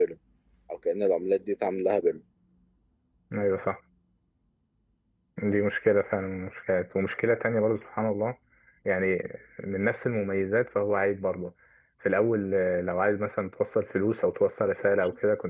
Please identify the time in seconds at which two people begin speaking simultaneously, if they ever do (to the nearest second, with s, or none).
none